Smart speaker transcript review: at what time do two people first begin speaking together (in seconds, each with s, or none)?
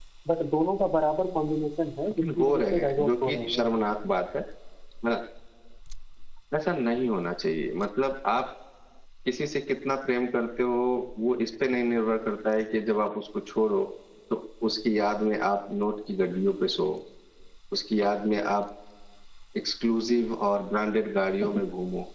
2.2 s